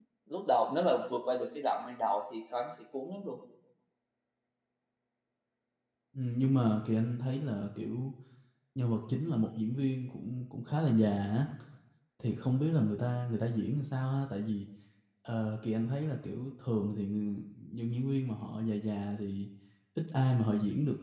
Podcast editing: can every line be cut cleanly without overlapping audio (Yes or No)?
Yes